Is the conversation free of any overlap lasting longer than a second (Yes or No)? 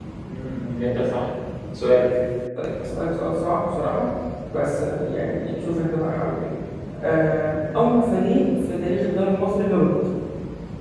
Yes